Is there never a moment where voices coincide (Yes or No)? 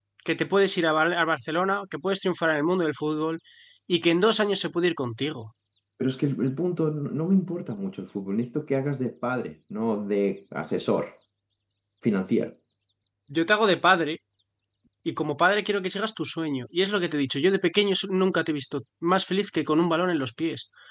Yes